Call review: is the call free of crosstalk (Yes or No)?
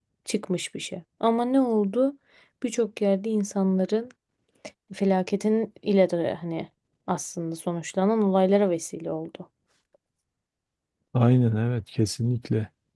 Yes